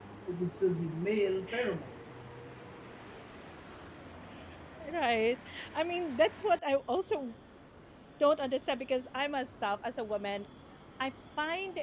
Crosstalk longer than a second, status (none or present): none